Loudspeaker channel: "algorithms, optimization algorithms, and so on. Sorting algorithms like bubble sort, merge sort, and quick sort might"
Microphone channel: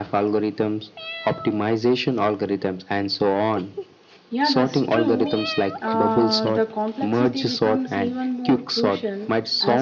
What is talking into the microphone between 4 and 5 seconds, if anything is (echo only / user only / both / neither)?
both